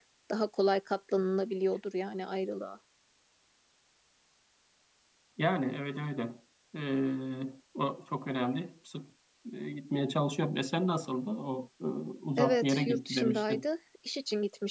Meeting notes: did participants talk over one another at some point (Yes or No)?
Yes